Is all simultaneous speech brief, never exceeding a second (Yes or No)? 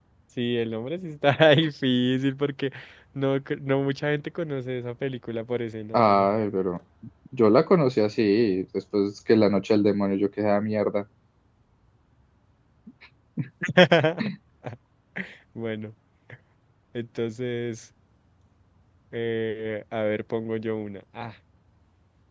Yes